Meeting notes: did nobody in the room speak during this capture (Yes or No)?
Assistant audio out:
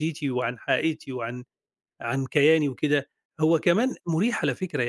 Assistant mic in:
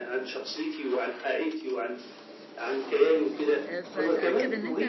No